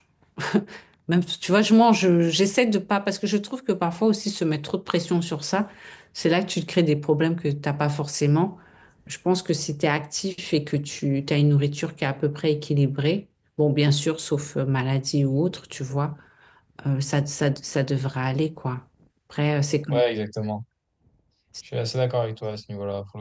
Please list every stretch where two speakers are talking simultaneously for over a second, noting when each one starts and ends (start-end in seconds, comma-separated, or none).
none